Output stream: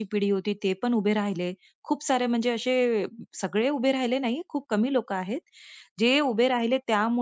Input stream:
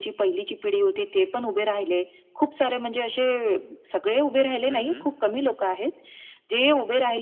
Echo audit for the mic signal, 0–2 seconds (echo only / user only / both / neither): echo only